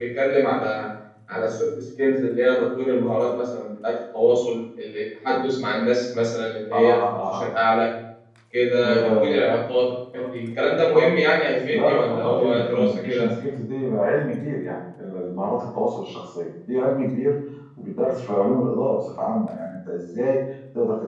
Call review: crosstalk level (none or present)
present